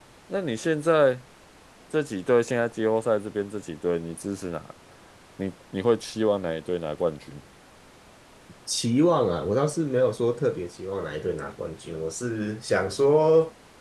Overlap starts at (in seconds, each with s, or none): none